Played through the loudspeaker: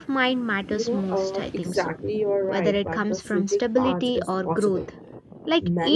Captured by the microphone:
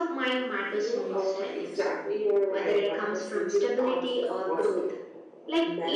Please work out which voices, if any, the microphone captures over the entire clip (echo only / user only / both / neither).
echo only